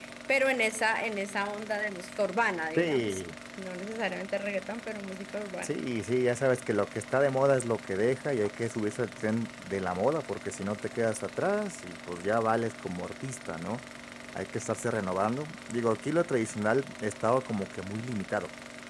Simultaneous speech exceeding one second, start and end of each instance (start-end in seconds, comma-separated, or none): none